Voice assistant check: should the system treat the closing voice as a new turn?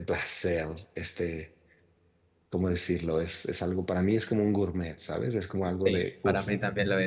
Yes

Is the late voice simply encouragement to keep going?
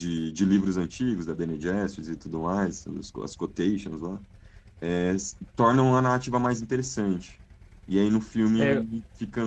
Yes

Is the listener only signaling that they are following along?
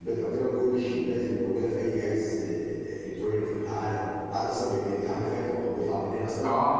No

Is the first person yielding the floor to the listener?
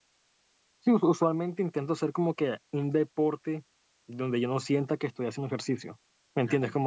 No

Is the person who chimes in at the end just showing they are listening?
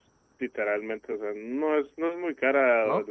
Yes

